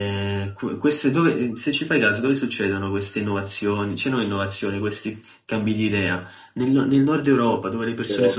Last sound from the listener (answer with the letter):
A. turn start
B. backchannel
B